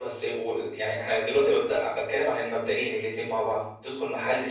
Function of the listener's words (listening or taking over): listening